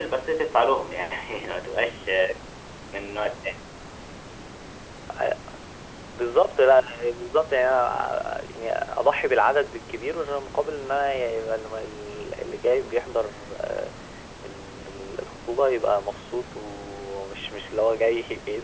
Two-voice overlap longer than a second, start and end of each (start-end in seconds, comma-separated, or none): none